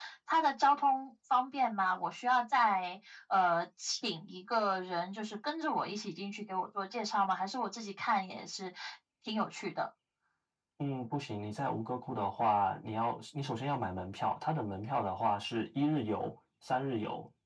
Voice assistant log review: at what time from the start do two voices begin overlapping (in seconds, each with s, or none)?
none